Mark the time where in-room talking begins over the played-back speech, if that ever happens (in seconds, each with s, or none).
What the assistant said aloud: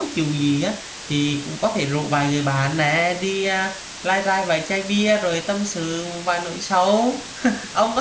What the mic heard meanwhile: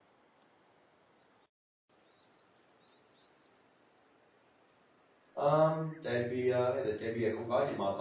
5.3 s